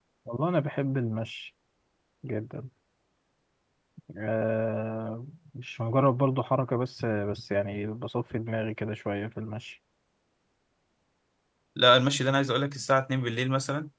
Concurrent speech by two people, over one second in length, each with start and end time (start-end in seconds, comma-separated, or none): none